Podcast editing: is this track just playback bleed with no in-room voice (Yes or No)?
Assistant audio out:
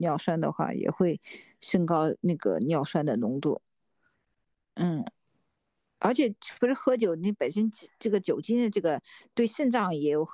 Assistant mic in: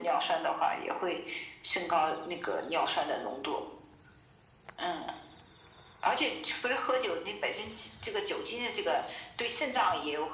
Yes